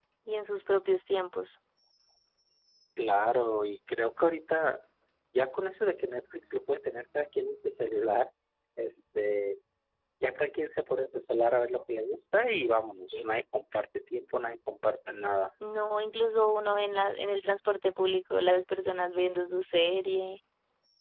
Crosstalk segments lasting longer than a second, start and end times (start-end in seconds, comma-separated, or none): none